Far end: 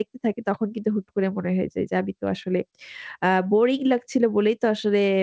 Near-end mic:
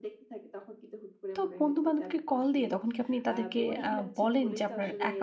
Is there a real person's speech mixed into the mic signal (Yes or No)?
Yes